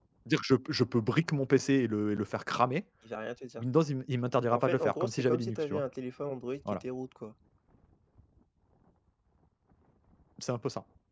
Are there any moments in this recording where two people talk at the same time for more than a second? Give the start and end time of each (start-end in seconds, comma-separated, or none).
4.5-5.8